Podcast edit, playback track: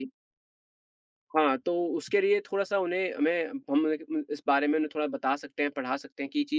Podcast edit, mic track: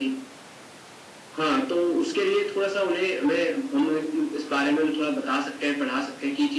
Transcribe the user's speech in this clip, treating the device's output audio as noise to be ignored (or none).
none